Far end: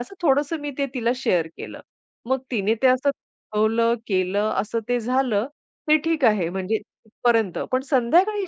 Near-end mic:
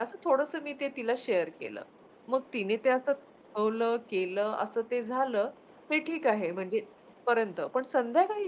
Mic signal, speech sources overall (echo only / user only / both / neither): echo only